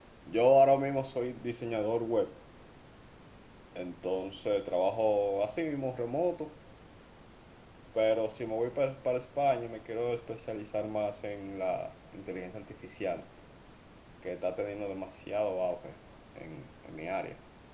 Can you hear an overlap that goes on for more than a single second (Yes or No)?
No